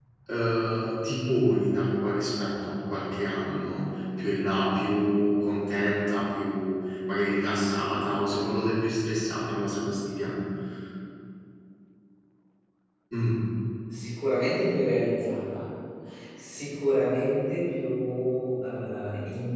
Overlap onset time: none

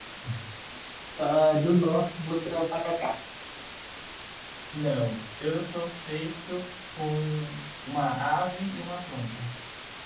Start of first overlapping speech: none

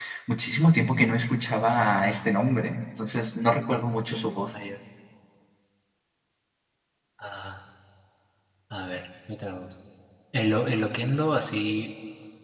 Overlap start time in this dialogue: none

